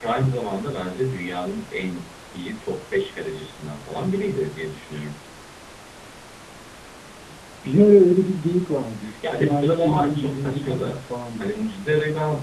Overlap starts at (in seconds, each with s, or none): 9.0 s